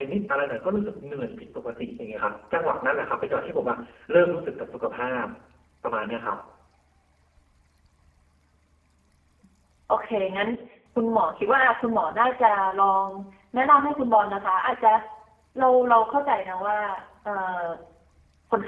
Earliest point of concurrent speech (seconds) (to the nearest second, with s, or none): none